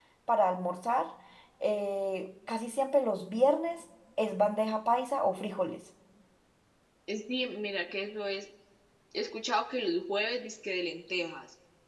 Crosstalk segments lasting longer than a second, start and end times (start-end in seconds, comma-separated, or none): none